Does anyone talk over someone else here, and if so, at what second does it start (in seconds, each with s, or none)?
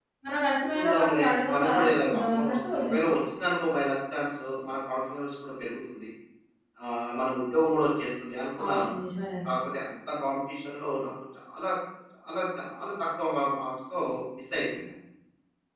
0.7 s